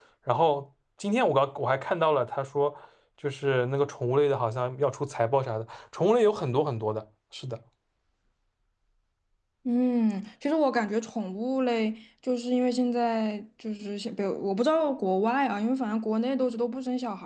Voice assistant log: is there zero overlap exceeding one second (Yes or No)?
Yes